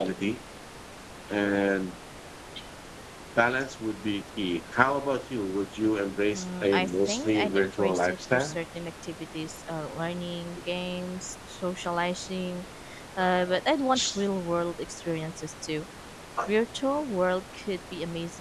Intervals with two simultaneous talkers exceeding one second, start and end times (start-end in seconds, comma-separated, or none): 6.3-8.5